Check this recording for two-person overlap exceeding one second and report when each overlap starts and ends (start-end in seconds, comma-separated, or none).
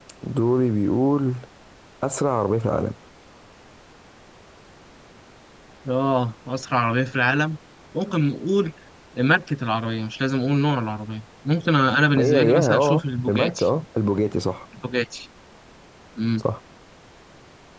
12.2-13.7